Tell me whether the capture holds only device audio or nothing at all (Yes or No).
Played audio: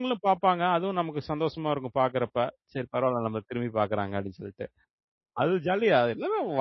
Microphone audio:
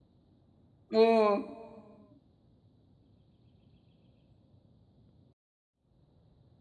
No